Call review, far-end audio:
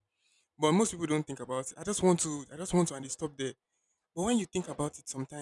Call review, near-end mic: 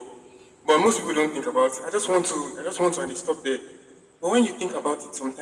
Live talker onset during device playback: none

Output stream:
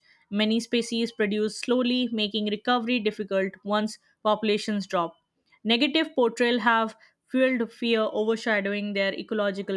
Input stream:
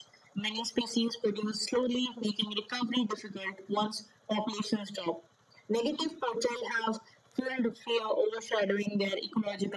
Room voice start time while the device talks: none

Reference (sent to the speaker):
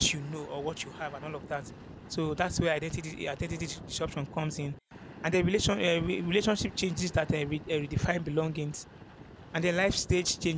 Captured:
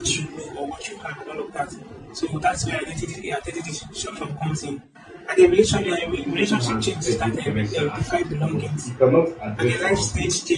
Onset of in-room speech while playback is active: 6 s

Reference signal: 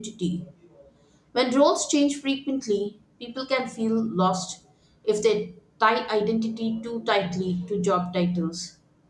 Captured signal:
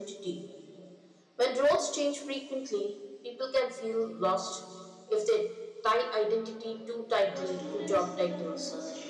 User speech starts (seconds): 7 s

